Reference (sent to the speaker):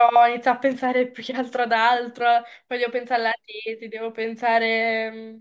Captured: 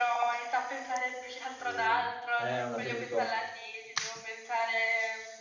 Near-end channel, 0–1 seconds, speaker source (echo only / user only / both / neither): echo only